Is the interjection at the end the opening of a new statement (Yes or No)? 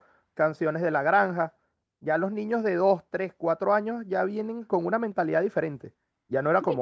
Yes